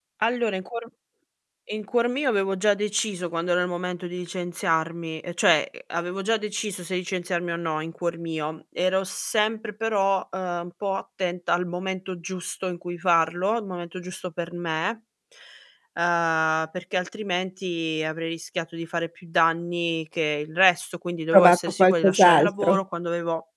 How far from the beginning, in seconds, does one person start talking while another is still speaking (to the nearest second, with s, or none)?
21 s